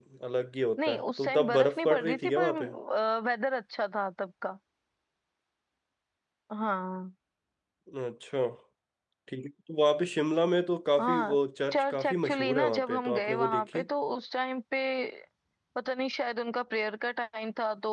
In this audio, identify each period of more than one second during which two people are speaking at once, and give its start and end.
0.9-2.5, 11.7-13.8

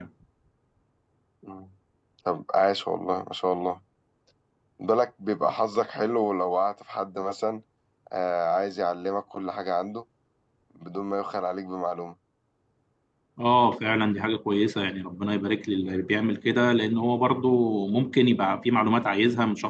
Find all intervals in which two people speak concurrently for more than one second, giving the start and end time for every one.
none

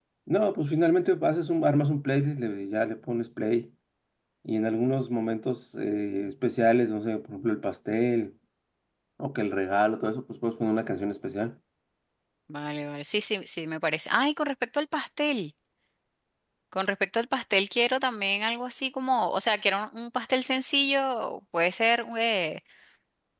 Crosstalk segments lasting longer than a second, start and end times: none

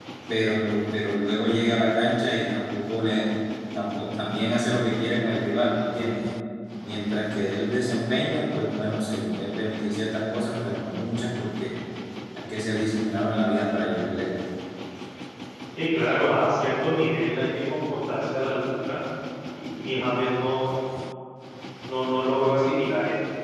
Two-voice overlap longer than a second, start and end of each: none

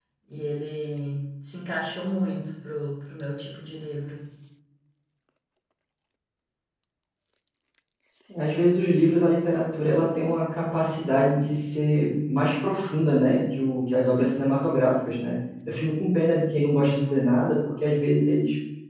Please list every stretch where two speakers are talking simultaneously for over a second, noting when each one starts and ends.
none

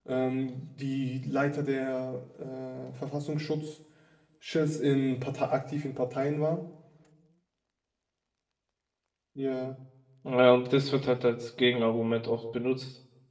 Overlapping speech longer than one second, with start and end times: none

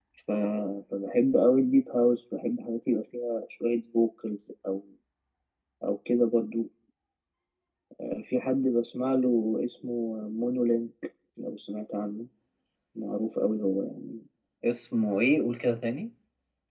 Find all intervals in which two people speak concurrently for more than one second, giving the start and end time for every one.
none

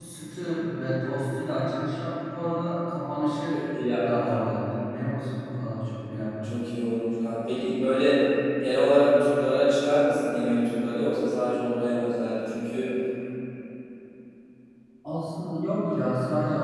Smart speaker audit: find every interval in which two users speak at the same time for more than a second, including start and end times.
none

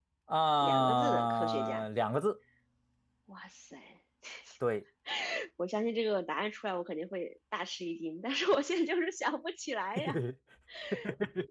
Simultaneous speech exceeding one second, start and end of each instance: 0.6-1.8

